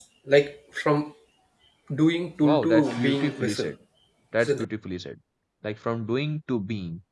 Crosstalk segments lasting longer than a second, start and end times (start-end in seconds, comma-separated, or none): 2.4-3.7